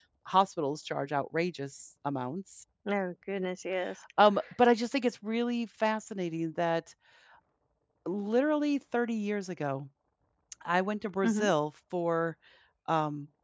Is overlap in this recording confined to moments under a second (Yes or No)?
Yes